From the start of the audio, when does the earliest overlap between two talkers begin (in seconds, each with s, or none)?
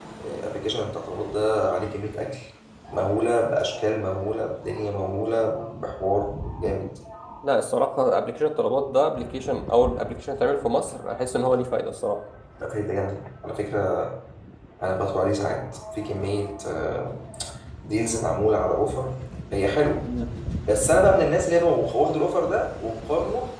none